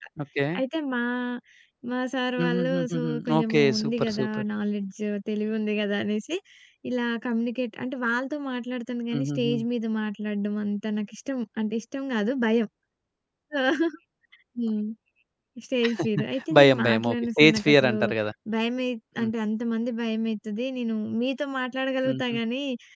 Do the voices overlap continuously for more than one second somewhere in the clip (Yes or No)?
Yes